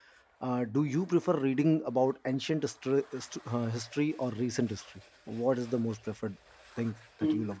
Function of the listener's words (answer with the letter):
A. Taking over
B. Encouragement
A